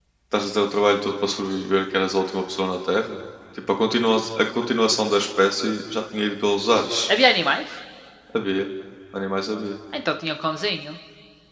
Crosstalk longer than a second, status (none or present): none